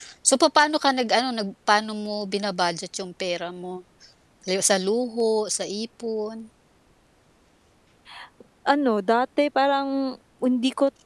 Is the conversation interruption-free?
Yes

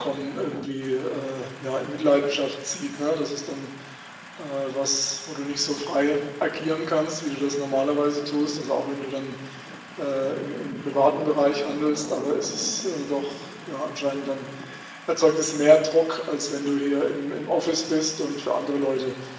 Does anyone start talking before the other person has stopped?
No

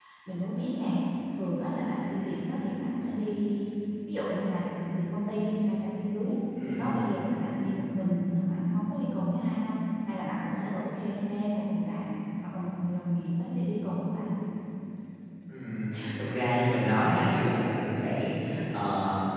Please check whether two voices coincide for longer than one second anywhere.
No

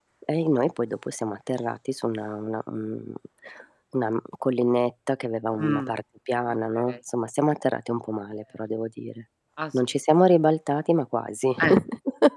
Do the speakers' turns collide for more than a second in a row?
No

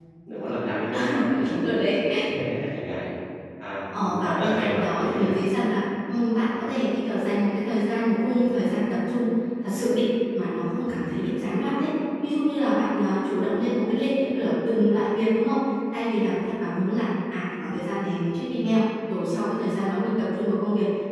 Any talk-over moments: Yes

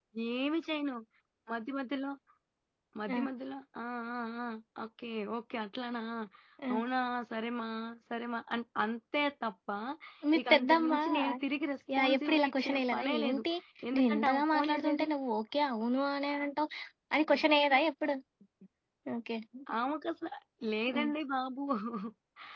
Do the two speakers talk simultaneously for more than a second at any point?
Yes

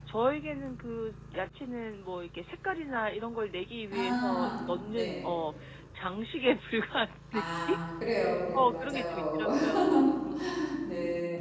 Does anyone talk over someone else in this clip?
Yes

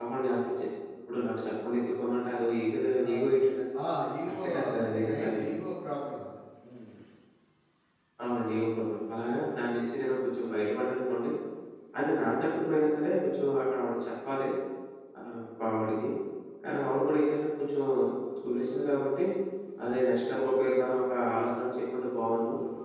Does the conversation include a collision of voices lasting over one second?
No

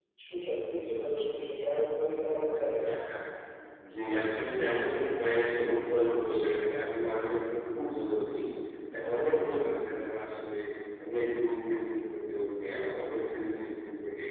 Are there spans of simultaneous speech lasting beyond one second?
No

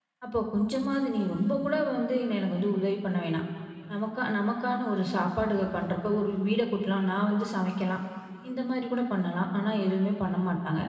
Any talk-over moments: No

